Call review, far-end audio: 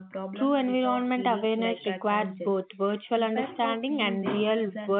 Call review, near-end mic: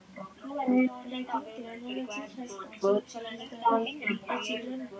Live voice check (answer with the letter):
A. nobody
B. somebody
B